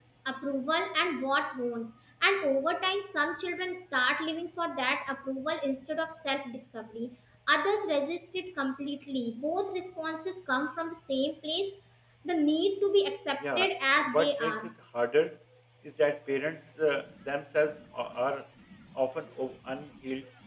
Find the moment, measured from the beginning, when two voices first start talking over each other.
13 s

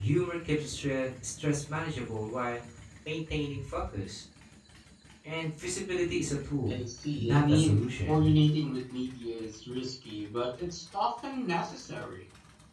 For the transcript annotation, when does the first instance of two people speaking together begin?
7 s

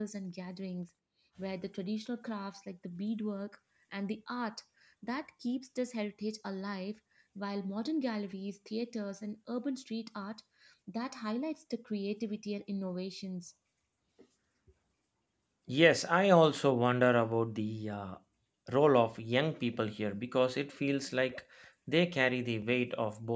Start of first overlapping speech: none

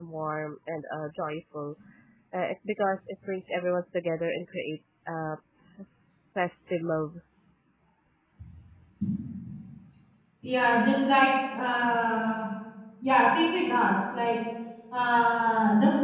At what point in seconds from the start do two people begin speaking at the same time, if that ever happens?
none

